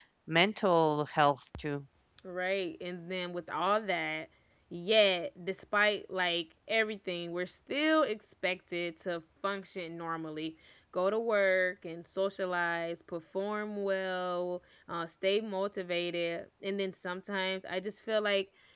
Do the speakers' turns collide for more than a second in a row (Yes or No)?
No